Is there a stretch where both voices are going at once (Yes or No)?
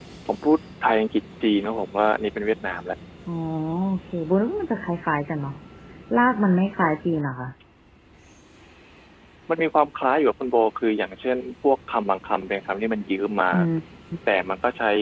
No